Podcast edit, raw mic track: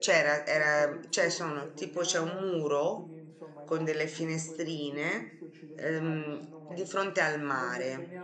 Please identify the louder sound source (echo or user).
user